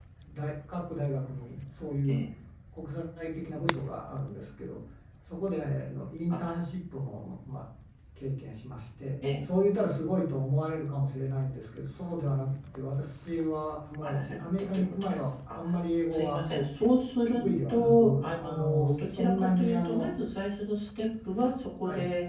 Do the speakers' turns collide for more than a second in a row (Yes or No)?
Yes